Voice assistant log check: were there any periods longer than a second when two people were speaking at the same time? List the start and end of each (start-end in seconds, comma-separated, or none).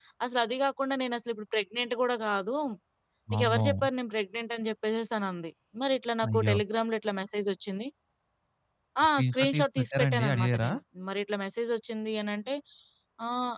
9.2-10.7